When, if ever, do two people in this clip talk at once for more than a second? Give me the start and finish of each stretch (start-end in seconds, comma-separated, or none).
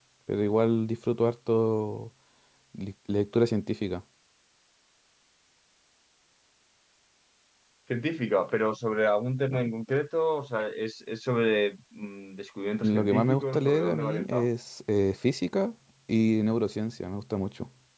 12.8-14.5